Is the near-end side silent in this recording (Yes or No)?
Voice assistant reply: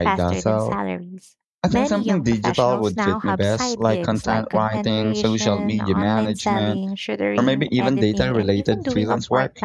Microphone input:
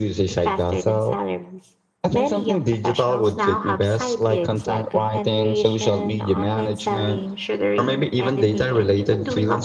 Yes